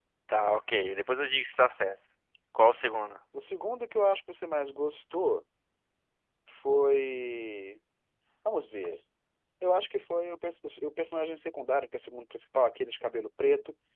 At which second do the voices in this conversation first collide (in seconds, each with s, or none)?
none